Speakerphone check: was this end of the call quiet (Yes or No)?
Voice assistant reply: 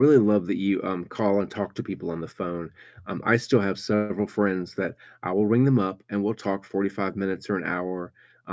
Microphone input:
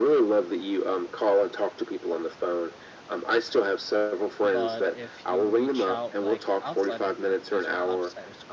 No